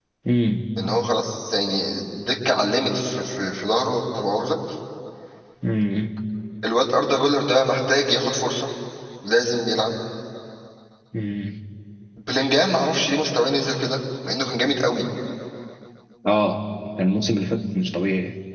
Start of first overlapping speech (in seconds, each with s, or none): none